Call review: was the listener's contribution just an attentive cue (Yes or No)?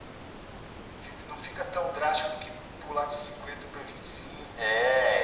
No